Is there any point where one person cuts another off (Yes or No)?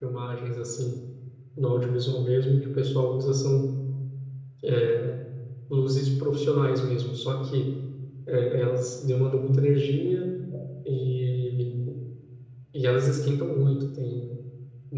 No